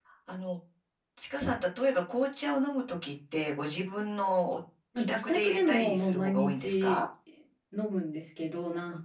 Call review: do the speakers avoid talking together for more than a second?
No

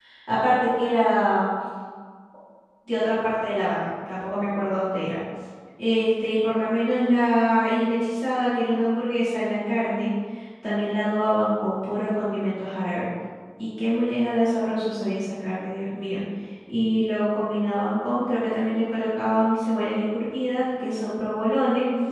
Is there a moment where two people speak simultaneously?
No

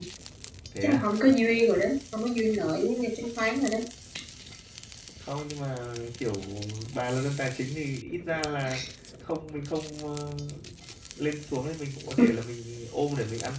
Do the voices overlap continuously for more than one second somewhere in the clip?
No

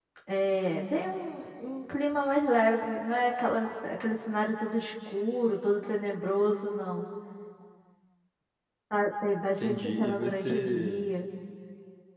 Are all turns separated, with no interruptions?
No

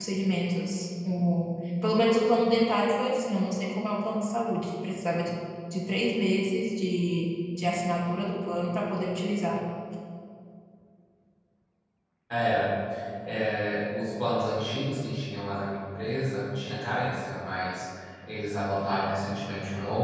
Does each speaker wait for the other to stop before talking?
Yes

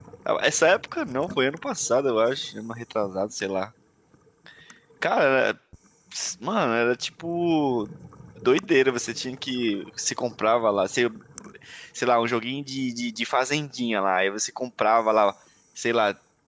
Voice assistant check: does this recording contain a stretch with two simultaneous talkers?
No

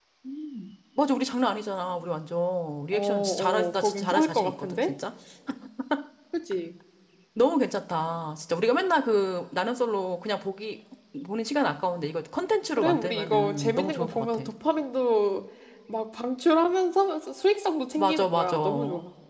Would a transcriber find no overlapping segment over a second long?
No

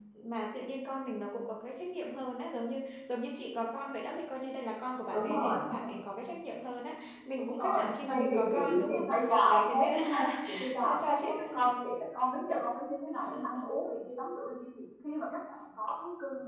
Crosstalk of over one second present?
Yes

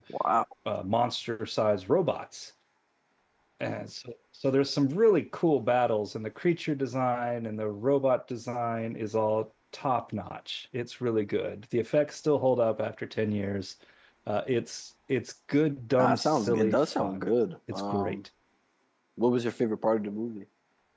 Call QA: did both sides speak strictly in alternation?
No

